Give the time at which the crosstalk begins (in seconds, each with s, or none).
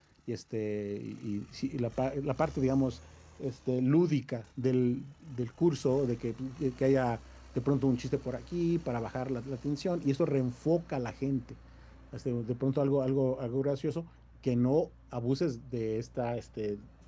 none